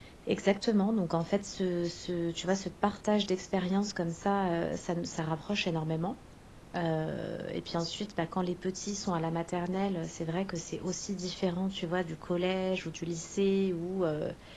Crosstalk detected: No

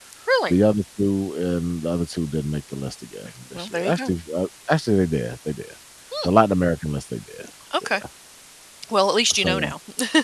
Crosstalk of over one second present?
No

